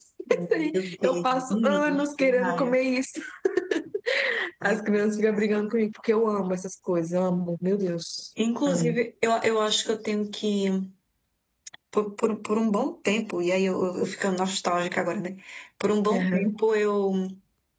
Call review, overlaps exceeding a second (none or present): present